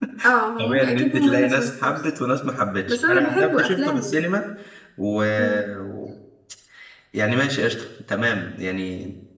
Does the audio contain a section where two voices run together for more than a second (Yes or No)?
Yes